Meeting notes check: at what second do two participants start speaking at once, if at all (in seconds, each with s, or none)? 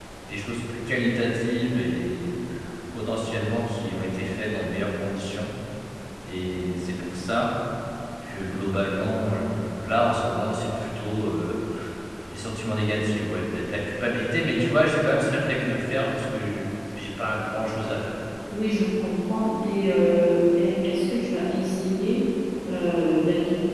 none